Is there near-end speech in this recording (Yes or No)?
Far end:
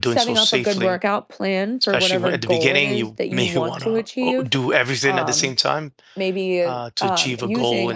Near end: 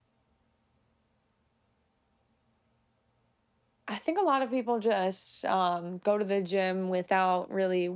Yes